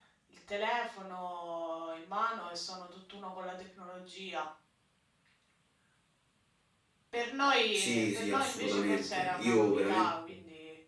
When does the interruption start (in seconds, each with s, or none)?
7.7 s